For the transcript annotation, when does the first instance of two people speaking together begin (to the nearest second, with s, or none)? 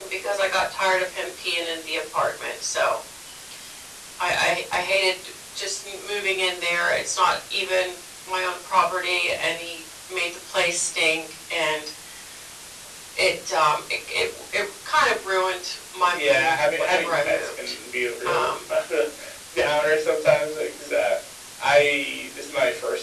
16 s